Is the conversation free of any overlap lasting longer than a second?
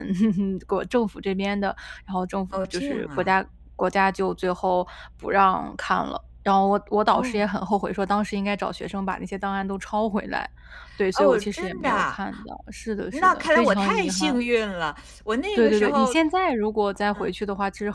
No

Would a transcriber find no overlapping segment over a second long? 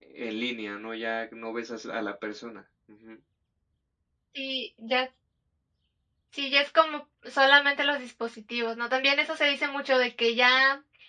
Yes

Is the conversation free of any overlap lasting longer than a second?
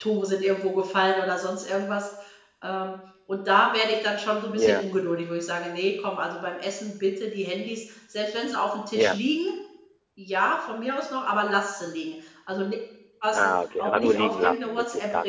No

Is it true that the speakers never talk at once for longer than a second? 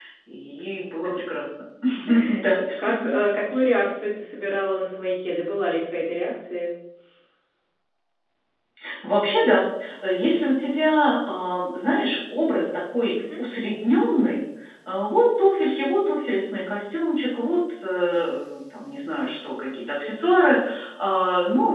Yes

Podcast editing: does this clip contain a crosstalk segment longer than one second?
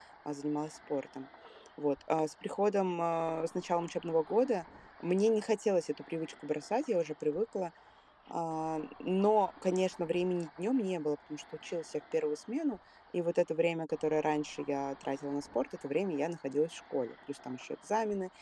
No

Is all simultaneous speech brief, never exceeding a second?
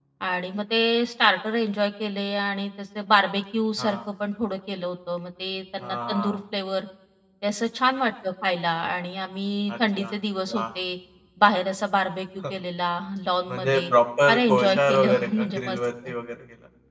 No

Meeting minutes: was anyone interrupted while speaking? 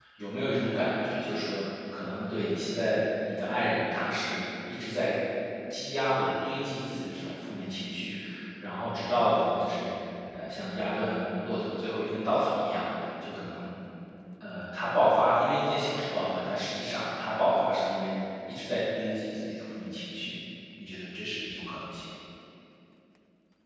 No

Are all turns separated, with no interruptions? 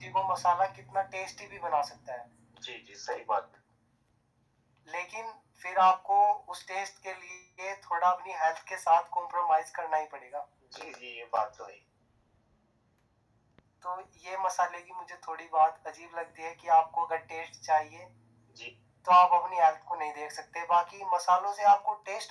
Yes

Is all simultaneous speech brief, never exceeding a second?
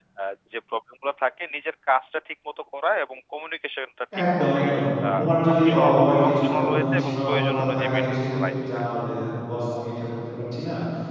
No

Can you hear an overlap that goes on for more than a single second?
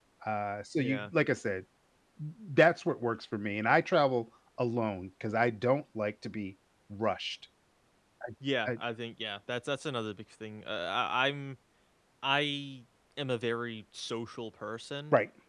No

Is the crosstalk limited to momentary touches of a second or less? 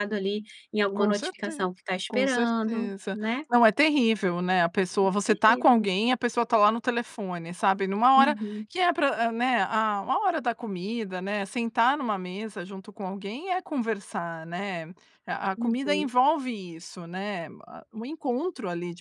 No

